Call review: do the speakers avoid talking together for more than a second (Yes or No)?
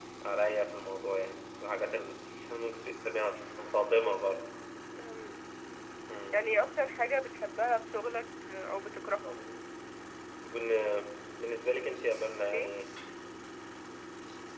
Yes